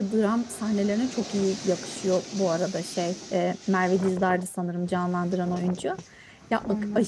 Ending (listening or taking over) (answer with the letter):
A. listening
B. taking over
A